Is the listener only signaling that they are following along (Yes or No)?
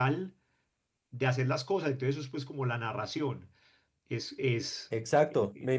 No